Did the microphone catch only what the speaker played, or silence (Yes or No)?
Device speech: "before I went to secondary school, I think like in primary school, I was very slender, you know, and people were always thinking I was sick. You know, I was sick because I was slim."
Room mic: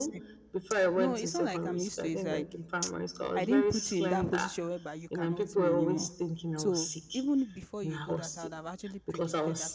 No